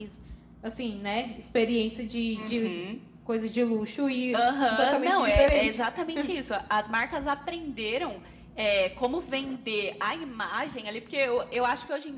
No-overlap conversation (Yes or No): No